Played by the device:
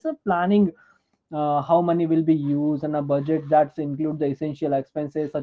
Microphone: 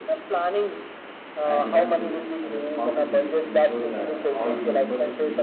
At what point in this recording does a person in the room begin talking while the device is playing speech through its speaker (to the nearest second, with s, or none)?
1 s